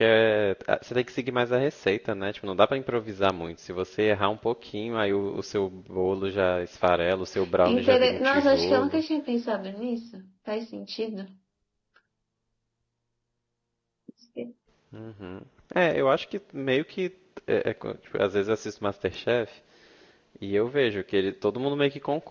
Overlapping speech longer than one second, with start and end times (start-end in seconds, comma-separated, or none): 7.7-9.0